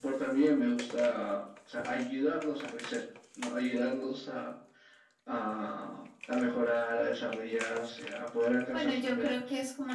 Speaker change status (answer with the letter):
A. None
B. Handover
B